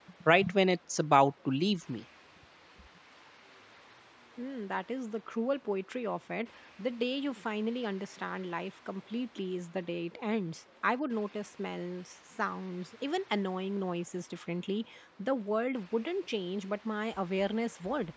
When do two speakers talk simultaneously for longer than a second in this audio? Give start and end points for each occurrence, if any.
none

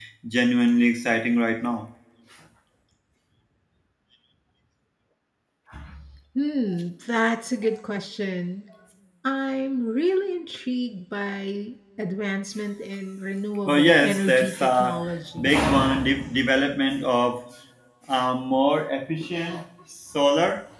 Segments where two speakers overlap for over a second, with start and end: 13.7-15.0

